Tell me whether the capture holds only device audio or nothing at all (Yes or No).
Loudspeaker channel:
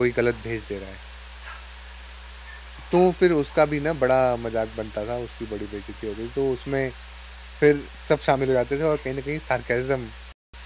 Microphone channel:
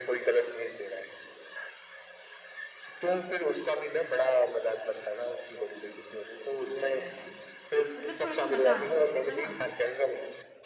No